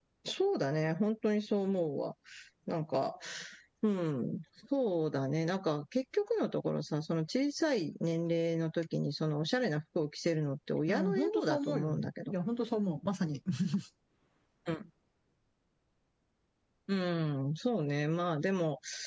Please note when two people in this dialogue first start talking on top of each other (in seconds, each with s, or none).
10.9 s